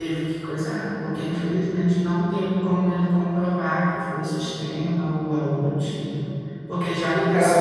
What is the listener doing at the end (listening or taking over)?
taking over